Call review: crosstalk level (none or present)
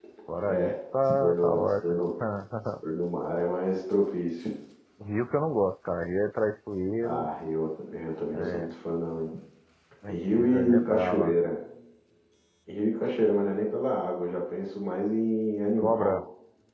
present